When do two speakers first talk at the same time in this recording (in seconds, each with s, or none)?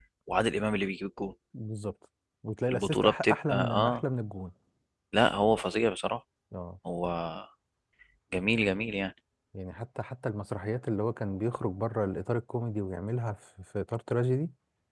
2.7 s